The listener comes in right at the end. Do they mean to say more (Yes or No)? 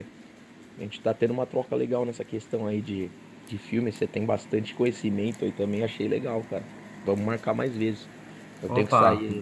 No